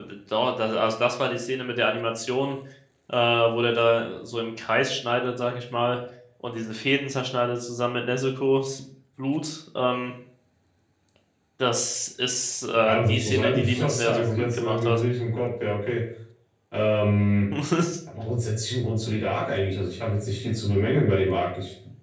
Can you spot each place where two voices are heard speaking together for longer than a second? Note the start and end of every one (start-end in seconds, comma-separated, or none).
12.8-15.0